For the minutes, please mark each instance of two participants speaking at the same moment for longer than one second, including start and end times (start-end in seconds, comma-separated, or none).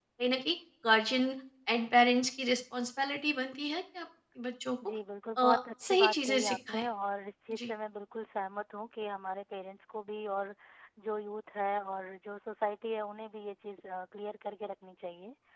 5.4-6.8